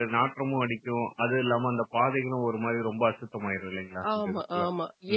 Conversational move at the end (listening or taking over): taking over